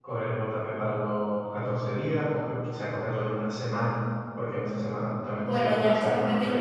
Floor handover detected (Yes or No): Yes